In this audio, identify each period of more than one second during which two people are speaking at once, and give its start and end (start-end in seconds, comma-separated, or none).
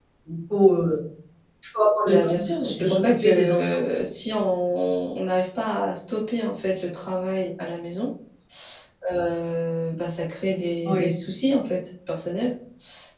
2.0-3.8